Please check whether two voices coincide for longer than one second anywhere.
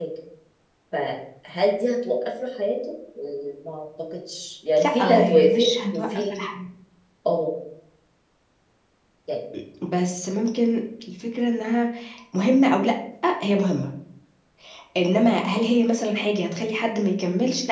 Yes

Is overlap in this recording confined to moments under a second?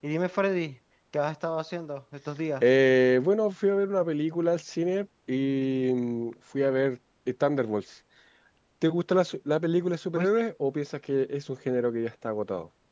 Yes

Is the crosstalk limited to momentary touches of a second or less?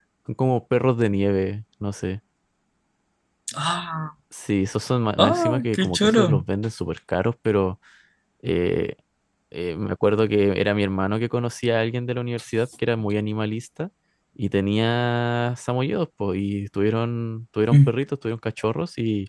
No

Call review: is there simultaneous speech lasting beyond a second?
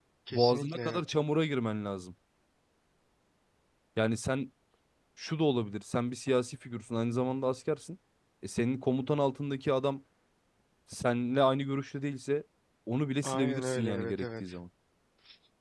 Yes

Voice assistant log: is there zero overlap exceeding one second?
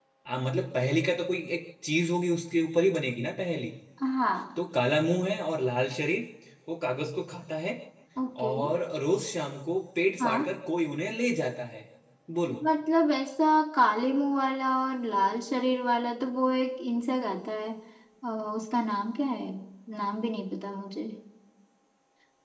Yes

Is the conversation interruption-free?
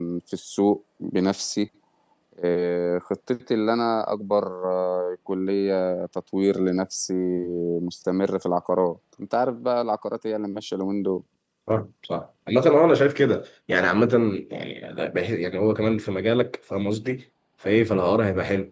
Yes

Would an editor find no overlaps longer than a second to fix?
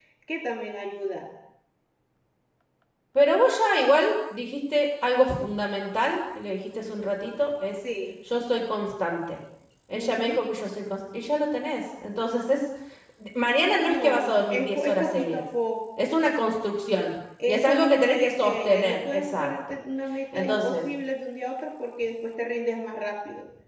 No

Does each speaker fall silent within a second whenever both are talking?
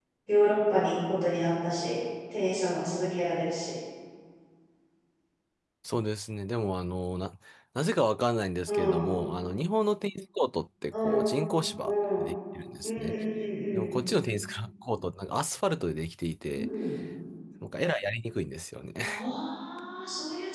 Yes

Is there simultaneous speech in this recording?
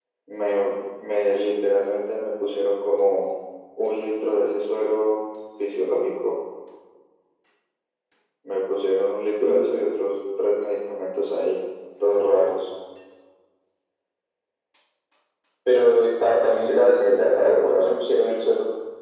Yes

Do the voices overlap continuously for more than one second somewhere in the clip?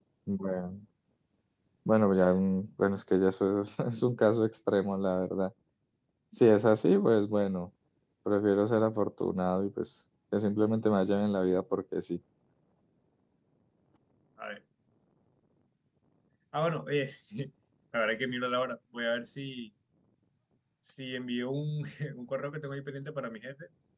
No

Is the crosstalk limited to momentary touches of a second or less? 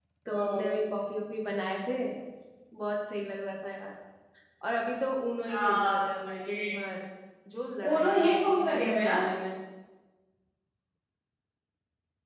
No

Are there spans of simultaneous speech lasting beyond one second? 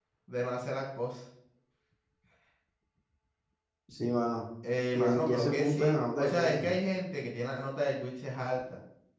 Yes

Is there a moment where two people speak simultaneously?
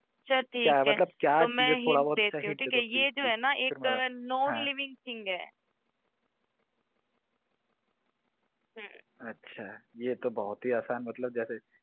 Yes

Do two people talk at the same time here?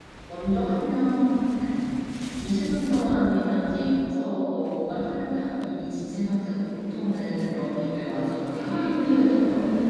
Yes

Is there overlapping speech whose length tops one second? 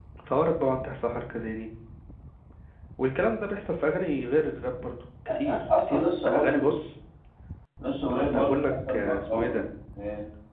Yes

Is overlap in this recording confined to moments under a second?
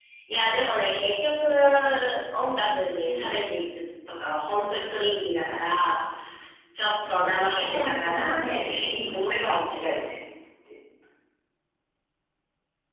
No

